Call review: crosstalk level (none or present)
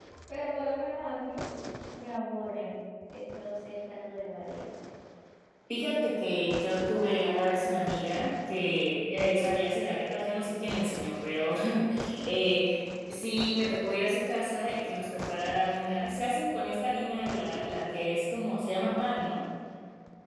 none